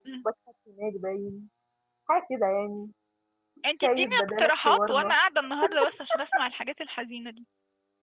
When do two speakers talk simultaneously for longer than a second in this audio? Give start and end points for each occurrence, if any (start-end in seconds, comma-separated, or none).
3.8-5.1